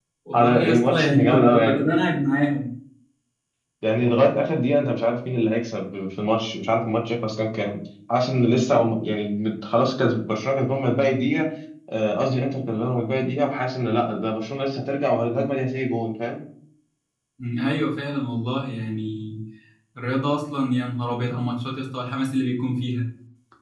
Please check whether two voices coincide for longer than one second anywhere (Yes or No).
Yes